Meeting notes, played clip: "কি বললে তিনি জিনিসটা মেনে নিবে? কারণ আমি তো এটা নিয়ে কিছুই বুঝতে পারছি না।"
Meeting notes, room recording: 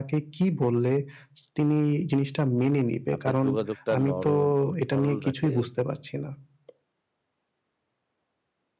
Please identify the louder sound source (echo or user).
echo